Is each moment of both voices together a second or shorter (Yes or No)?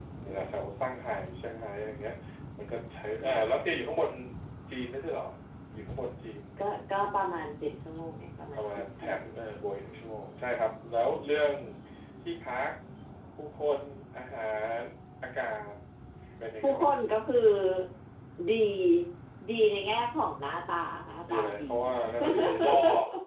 No